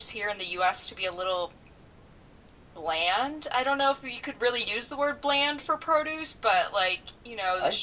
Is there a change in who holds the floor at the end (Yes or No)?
No